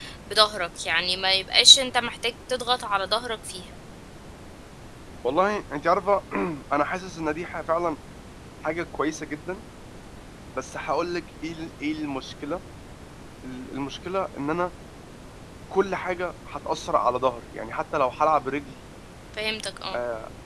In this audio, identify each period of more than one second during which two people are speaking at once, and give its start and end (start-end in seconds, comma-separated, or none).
none